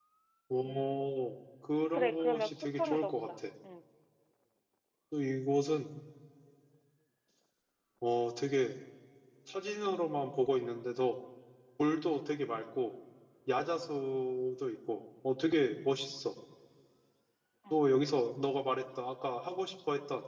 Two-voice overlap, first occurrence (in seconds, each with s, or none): 1.9 s